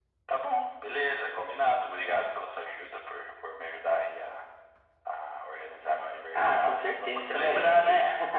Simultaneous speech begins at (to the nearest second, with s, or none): 6 s